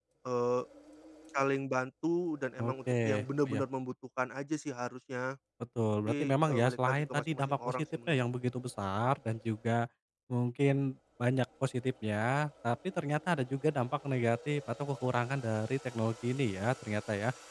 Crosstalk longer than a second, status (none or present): present